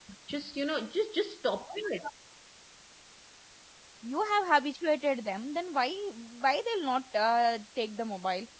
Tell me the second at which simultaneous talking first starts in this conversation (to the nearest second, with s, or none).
none